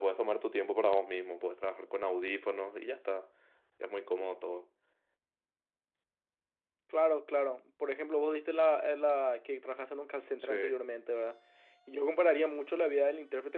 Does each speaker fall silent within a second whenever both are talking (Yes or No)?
Yes